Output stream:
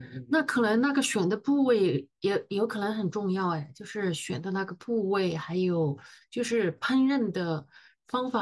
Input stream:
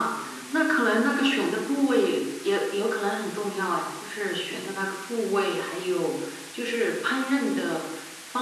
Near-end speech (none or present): none